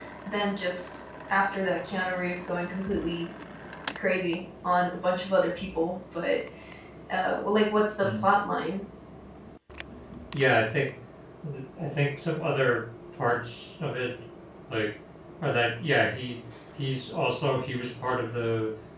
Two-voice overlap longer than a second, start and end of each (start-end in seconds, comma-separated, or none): none